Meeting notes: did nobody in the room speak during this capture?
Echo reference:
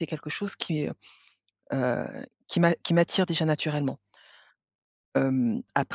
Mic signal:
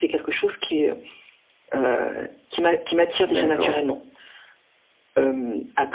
No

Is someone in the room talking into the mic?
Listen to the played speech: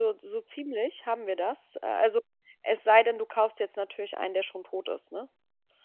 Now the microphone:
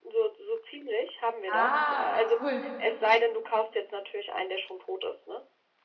Yes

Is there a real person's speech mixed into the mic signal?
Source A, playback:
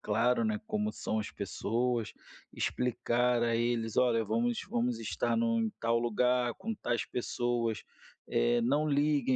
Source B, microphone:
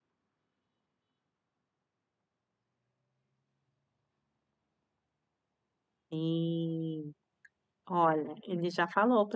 Yes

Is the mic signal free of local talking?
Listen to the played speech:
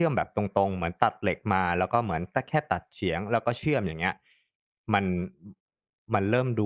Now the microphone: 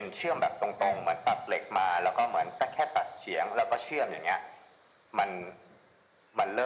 No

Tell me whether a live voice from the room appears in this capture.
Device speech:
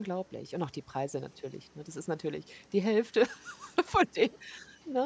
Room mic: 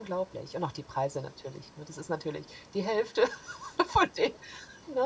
No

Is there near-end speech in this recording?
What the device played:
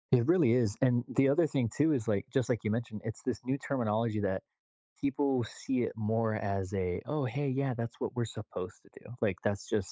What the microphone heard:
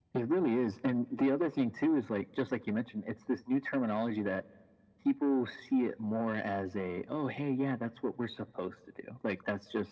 No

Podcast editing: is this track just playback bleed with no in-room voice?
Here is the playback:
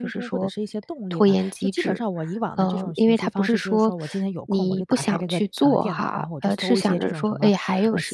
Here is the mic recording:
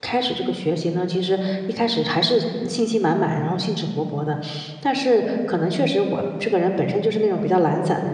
No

